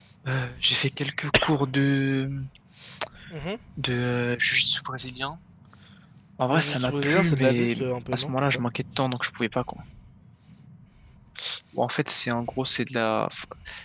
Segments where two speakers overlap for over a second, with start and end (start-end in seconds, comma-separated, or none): 6.5-7.8